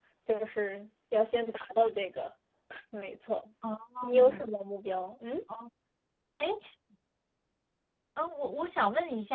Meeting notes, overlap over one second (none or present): none